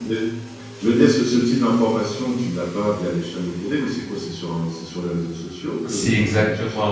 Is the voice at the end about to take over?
Yes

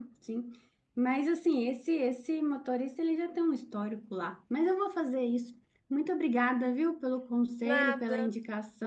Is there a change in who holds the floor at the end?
No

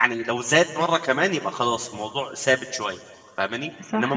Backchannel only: Yes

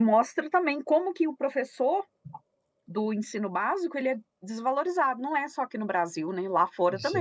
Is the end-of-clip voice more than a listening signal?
Yes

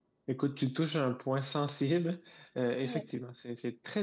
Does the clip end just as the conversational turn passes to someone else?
No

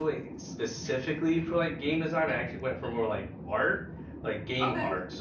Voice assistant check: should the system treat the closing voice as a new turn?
No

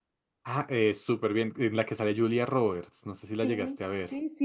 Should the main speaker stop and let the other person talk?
Yes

